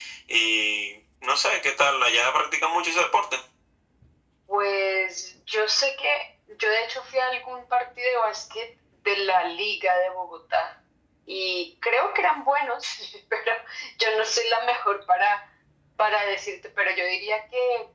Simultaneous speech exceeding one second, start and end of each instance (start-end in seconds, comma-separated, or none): none